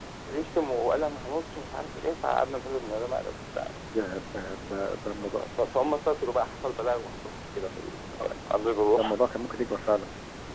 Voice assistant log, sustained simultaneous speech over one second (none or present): none